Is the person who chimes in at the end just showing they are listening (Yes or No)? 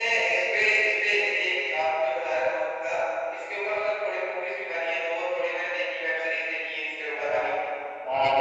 No